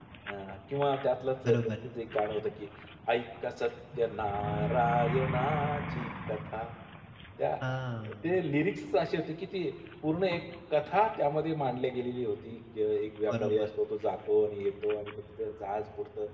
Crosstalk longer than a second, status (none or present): none